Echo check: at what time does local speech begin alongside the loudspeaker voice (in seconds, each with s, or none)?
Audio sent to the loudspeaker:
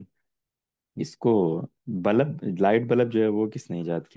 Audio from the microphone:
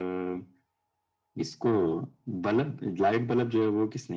none